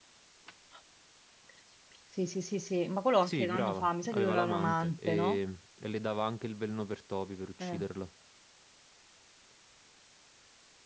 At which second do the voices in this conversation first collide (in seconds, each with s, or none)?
3.2 s